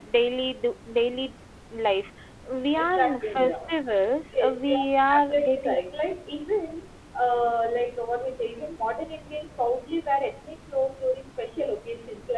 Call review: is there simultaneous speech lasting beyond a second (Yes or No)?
Yes